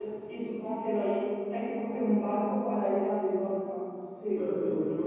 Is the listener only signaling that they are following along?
No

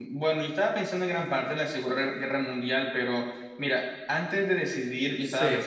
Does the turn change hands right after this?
No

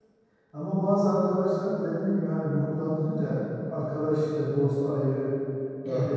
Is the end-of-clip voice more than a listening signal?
No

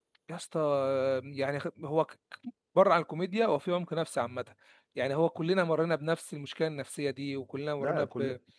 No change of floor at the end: No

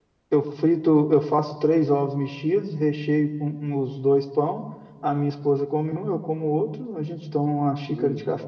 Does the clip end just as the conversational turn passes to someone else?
No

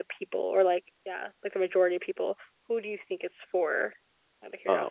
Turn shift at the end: Yes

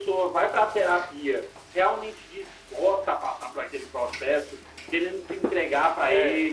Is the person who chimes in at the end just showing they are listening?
Yes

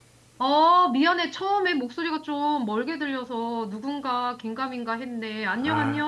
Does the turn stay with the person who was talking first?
No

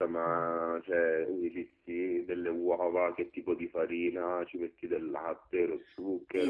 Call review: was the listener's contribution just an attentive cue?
No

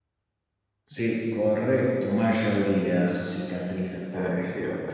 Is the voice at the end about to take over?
Yes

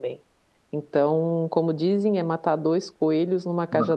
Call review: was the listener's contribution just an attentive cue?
No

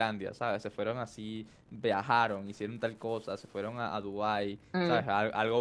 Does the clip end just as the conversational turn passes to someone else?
No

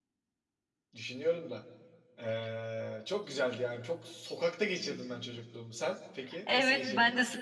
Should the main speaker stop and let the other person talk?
Yes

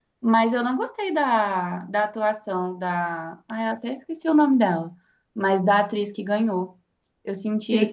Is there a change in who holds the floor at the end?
Yes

